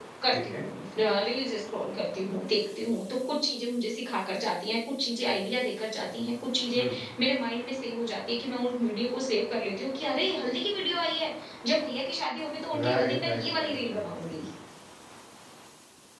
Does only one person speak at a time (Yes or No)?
No